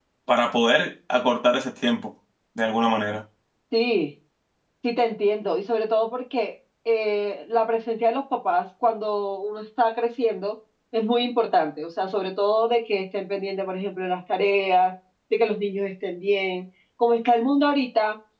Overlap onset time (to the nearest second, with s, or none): none